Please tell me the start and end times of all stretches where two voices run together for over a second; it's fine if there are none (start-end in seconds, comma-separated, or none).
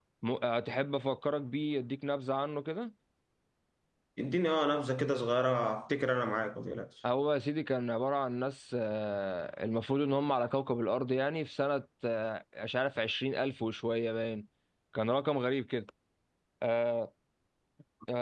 none